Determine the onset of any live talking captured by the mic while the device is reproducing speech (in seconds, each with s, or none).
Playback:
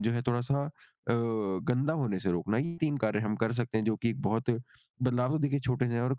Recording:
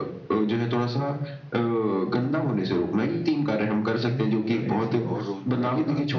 4.1 s